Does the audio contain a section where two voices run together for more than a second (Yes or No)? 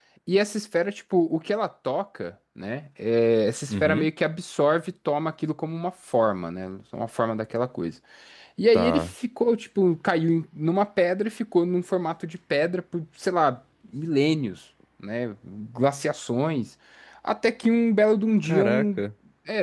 No